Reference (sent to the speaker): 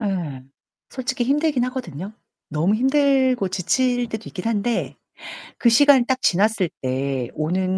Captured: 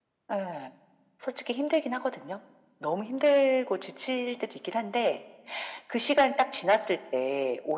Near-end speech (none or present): none